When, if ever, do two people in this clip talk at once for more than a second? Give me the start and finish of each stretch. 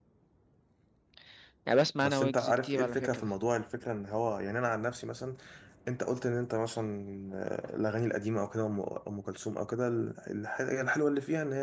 2.0-3.3

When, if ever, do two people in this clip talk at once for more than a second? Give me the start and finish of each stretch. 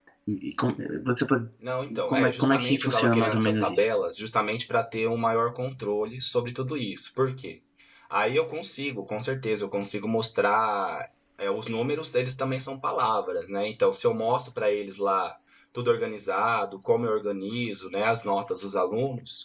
2.1-3.9

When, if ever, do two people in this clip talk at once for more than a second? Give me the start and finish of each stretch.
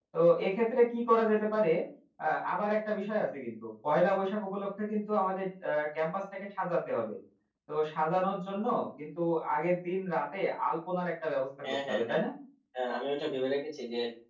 none

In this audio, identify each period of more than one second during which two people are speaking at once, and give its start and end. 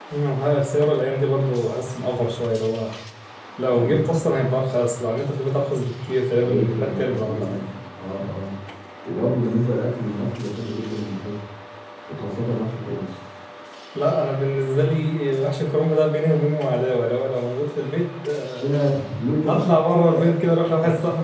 6.3-7.6

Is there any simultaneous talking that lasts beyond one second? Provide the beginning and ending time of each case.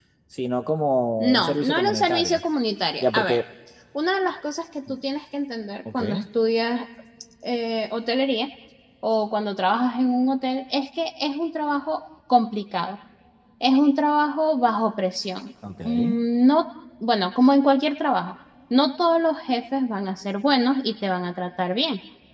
1.2-2.4

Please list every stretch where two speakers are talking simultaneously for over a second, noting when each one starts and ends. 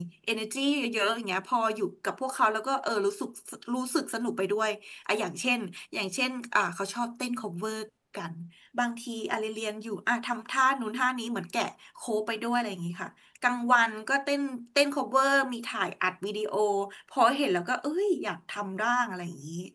none

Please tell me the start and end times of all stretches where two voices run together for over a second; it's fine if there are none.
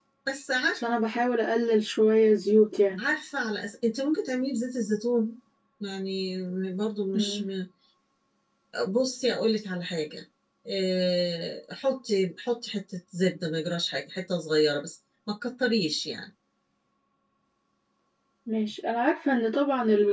none

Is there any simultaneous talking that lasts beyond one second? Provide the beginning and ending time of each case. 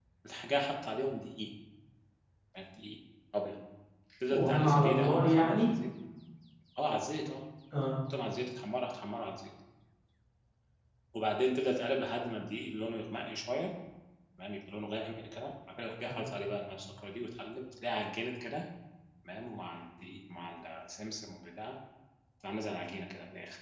4.3-5.7

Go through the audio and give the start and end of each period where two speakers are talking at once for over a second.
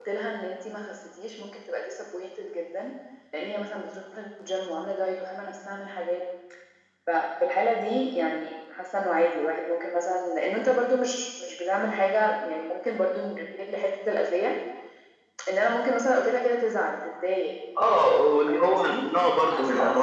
17.9-19.1

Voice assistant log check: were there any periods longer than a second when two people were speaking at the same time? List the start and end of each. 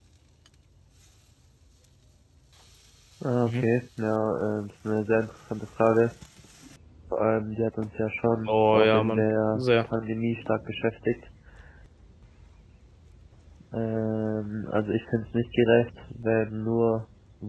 8.5-9.9

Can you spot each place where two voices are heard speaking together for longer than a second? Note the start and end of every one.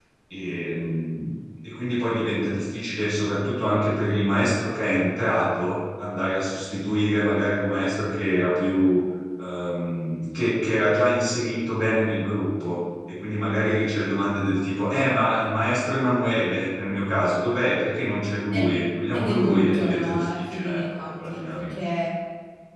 19.1-21.7

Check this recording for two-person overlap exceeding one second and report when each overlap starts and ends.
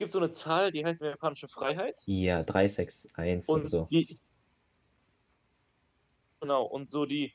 none

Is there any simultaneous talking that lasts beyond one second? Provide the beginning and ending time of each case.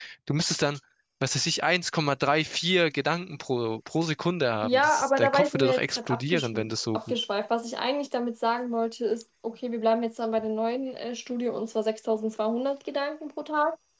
4.6-6.6

